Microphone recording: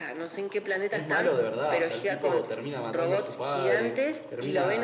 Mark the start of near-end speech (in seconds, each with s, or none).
0.9 s